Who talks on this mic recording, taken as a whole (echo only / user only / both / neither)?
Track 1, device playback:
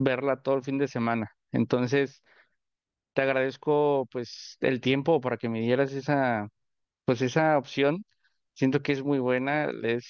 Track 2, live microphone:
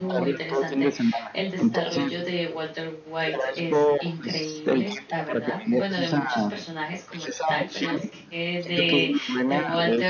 both